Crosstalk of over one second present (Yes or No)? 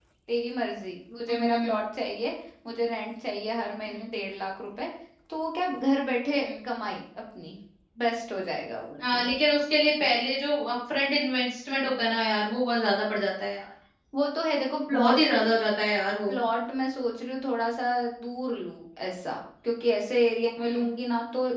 No